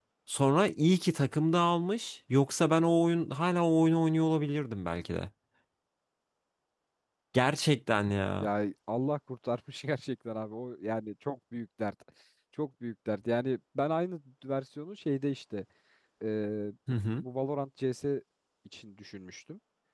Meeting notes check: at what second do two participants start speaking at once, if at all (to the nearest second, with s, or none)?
none